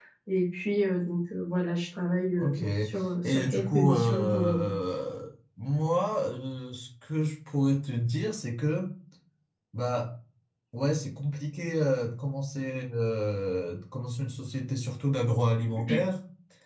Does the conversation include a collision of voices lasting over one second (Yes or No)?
Yes